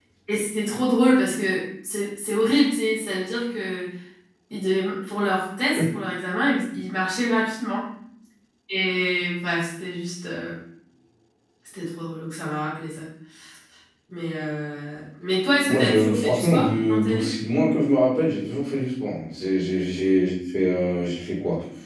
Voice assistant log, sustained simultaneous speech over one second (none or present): present